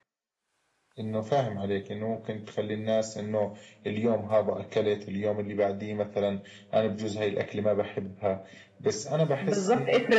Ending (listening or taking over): taking over